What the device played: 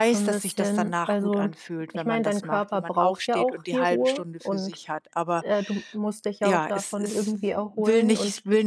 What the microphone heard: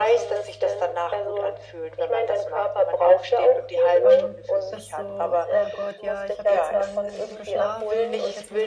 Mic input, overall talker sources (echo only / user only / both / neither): both